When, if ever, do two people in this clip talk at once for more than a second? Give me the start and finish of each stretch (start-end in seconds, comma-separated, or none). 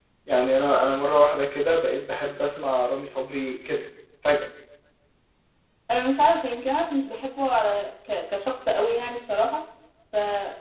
none